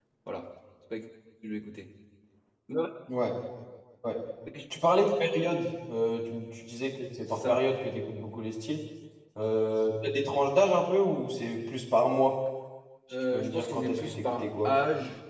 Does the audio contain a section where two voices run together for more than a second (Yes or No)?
Yes